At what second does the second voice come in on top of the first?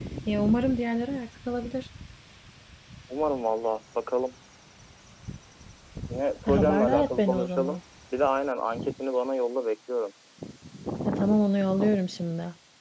6 s

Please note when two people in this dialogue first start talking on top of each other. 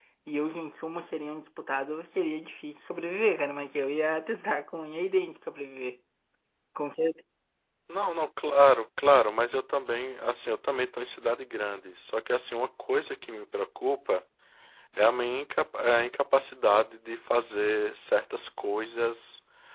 none

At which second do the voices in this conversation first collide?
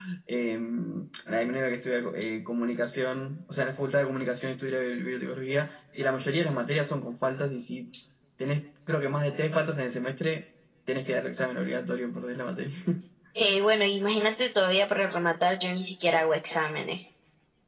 none

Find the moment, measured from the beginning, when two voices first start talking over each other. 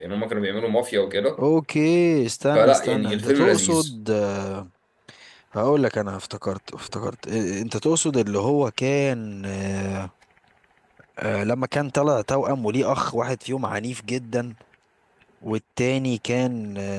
3 s

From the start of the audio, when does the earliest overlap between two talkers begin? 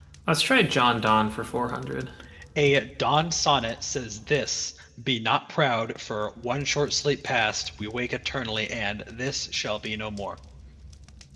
none

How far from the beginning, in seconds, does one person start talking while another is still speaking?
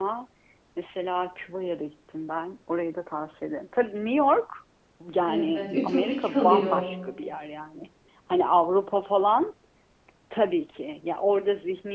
5 s

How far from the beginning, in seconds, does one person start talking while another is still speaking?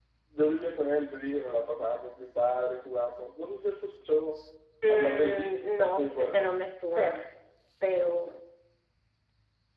5 s

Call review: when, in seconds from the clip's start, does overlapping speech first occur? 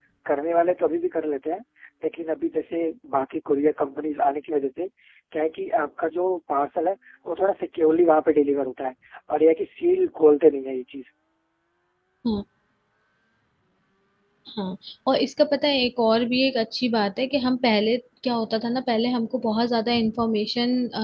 none

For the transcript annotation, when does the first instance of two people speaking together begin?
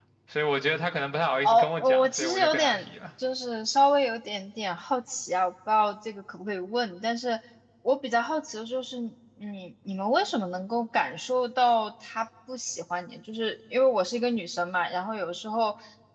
1 s

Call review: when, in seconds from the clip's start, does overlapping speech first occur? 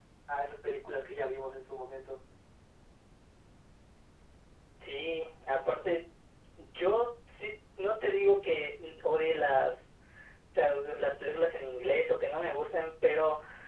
none

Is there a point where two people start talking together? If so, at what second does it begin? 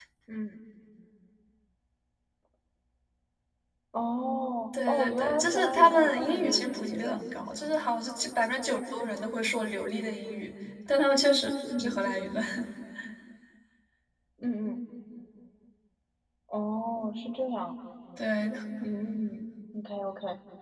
5 s

